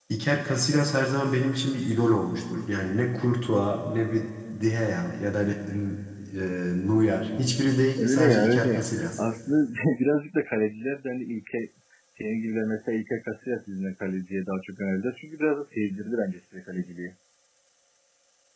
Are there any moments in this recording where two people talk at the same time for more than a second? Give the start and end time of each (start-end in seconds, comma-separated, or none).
8.0-9.2